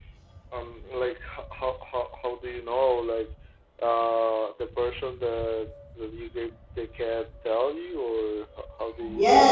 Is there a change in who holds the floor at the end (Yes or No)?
Yes